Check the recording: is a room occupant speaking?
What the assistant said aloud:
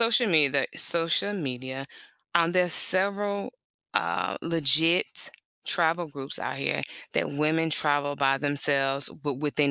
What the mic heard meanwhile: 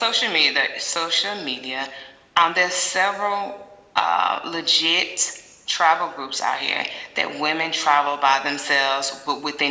No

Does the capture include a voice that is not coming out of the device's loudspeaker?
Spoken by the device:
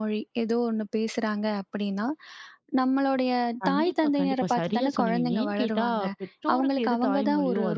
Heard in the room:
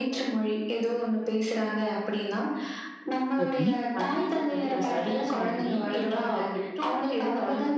Yes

